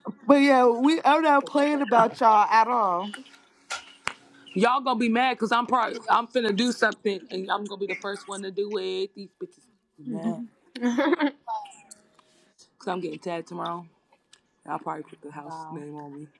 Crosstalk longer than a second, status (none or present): none